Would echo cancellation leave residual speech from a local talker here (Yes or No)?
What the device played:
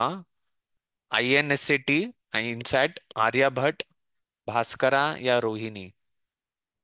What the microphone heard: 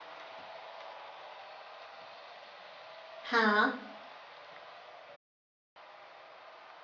Yes